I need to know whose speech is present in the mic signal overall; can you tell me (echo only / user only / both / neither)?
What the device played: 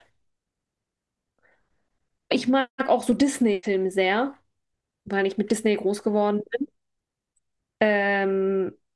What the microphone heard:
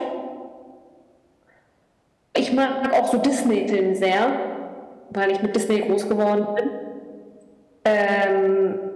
echo only